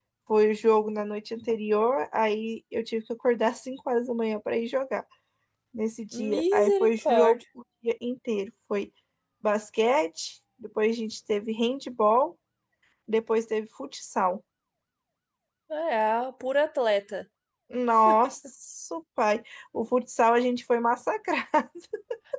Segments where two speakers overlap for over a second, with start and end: 6.1-7.4

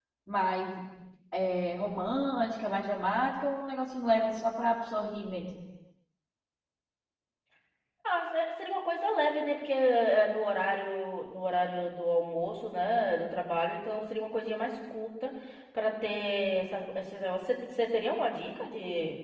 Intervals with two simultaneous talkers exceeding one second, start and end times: none

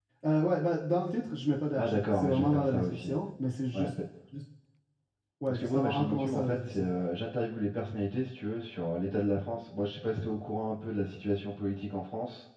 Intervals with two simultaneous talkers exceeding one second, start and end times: 1.8-3.1, 5.5-6.9

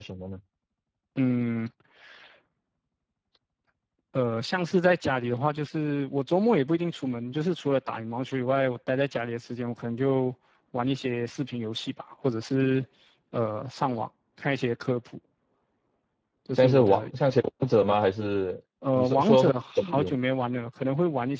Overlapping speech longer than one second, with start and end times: 19.0-20.2

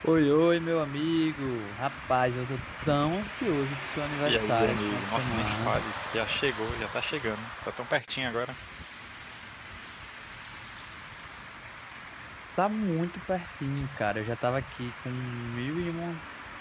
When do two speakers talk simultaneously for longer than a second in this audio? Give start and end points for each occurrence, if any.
4.2-5.8

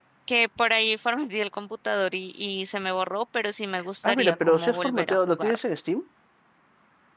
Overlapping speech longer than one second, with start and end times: 4.0-5.6

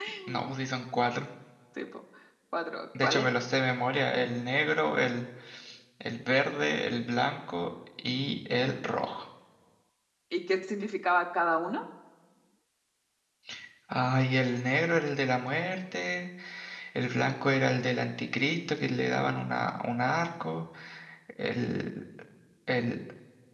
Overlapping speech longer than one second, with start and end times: none

